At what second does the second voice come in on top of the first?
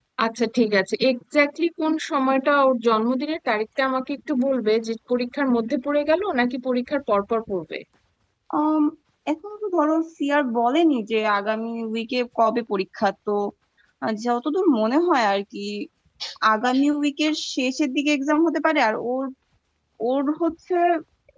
none

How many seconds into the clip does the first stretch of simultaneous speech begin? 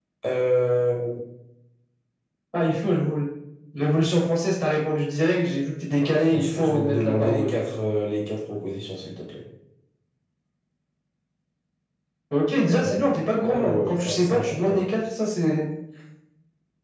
6.0 s

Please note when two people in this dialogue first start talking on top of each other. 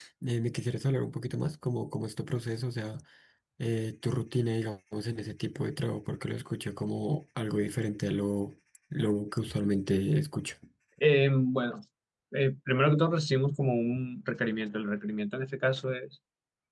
none

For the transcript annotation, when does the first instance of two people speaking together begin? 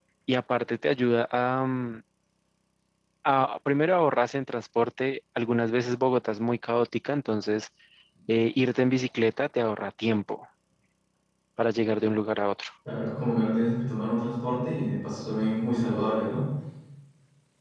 none

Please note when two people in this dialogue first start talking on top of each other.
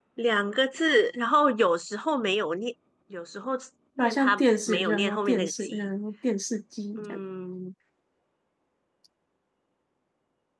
4.0 s

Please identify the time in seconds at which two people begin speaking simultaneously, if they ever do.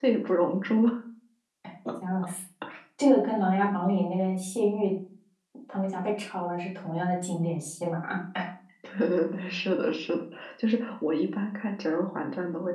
none

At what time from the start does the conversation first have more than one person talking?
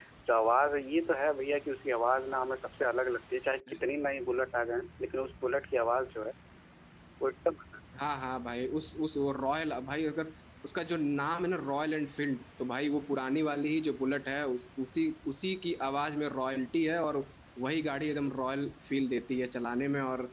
none

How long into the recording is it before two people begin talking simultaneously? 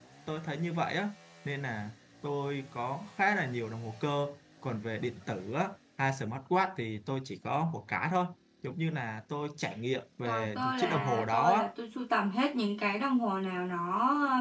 10.3 s

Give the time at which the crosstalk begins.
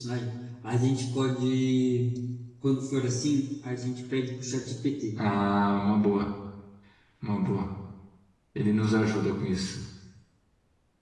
none

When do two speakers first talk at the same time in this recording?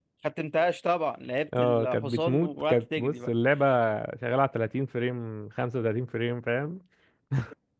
1.5 s

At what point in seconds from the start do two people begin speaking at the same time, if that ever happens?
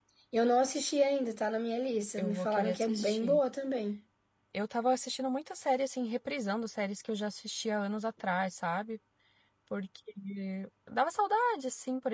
2.2 s

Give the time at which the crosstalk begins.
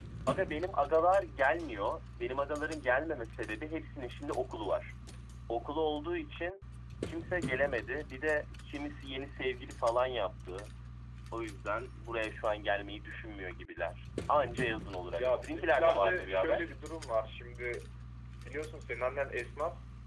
15.1 s

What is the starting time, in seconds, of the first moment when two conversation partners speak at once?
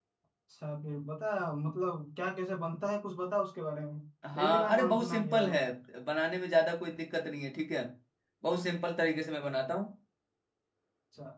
4.3 s

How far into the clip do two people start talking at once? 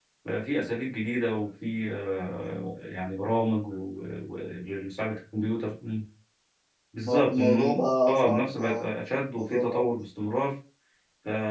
7.0 s

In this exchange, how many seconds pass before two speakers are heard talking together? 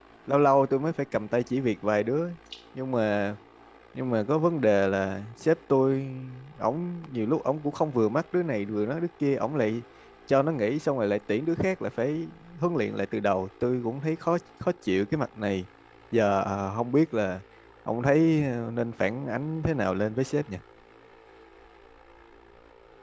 none

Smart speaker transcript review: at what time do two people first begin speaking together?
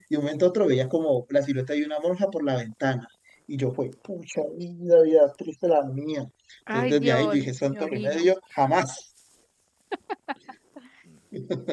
6.7 s

